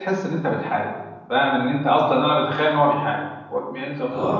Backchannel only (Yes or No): No